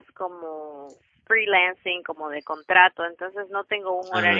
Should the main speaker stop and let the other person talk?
No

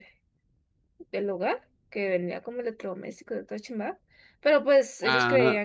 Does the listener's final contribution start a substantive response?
No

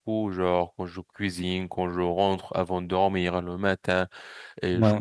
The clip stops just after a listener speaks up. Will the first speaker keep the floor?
Yes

